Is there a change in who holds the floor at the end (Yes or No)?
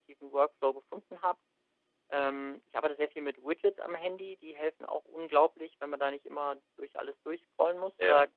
No